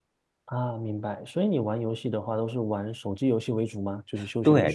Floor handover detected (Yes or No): Yes